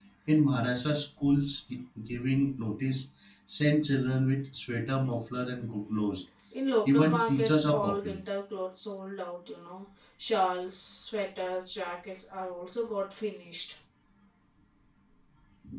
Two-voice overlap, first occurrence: 6.9 s

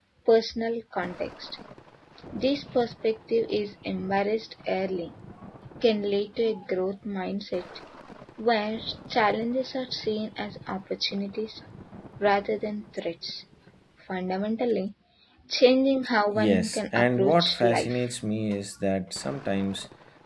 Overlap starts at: 16.4 s

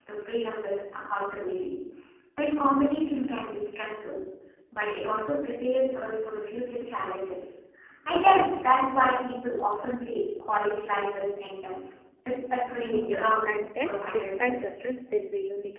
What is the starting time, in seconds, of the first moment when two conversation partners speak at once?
12.9 s

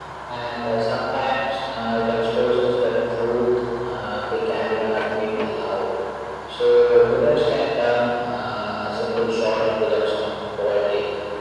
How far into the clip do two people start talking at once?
none

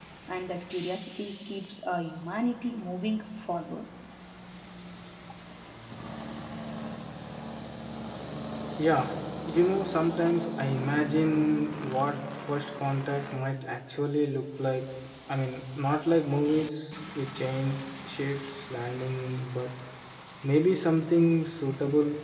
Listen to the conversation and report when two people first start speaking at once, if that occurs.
none

